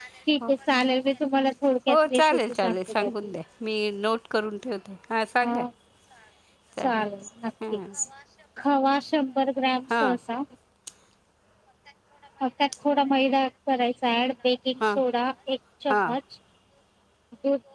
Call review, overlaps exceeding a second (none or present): present